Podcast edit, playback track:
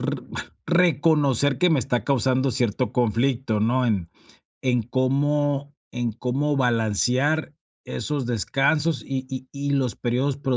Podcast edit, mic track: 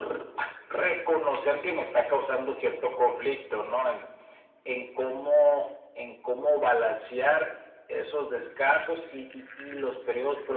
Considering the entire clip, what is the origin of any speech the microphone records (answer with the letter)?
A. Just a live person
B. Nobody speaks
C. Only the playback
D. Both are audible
C